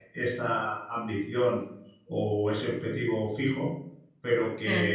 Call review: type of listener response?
listening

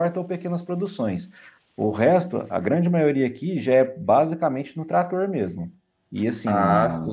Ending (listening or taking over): taking over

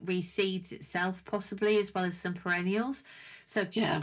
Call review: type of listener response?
listening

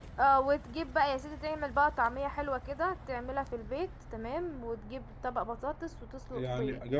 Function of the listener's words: taking over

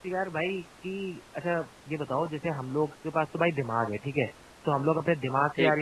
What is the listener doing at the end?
listening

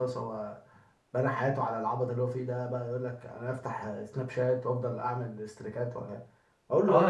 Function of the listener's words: taking over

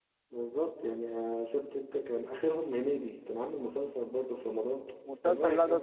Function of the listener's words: taking over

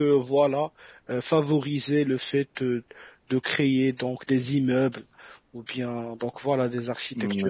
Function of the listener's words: taking over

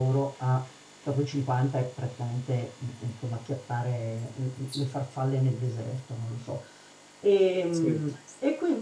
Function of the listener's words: listening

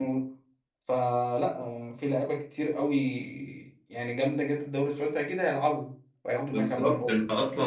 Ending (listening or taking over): taking over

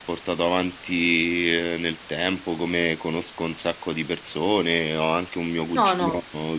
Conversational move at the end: listening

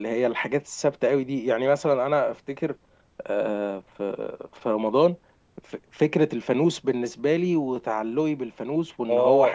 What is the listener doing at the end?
taking over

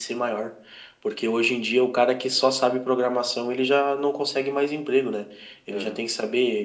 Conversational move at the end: listening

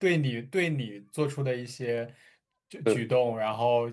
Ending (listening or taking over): listening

